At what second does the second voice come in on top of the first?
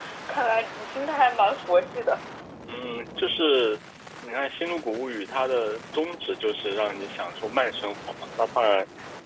none

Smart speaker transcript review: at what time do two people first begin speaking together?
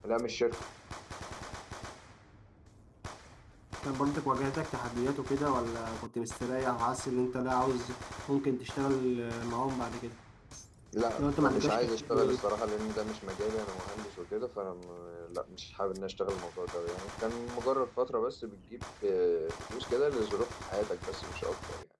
11.2 s

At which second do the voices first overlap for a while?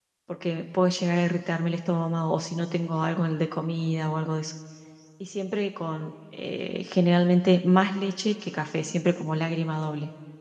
none

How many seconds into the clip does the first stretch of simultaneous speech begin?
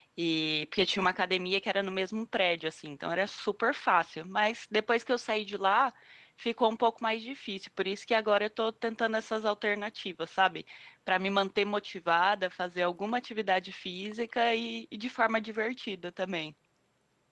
none

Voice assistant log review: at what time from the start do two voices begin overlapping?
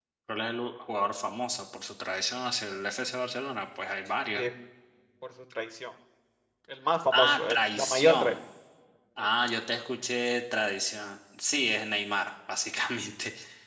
7.1 s

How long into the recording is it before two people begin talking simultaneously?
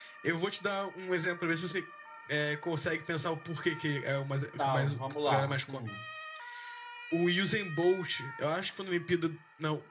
4.6 s

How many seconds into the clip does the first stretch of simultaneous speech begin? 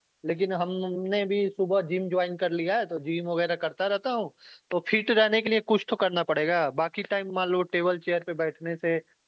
none

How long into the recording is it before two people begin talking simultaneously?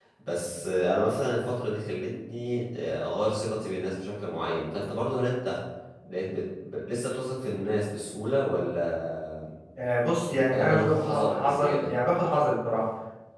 10.2 s

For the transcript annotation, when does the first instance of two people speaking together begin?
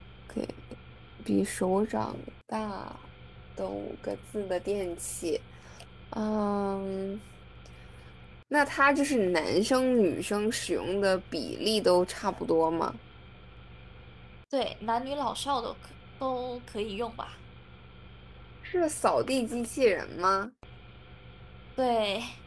none

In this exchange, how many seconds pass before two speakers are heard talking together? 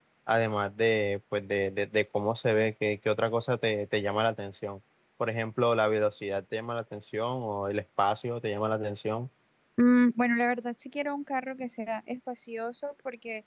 none

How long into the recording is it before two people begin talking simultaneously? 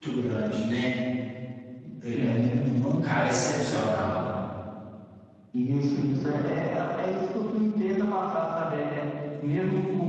2.1 s

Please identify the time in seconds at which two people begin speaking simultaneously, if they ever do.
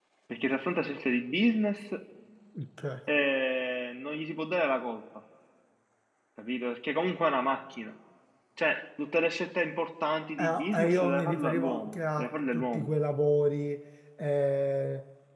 10.4 s

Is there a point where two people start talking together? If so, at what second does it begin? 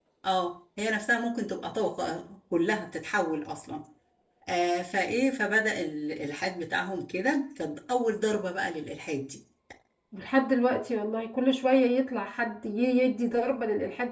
none

